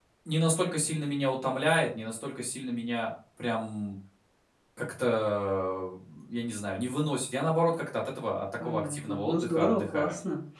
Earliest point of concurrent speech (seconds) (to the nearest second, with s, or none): 9 s